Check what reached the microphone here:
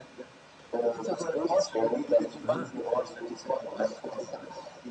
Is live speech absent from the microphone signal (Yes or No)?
No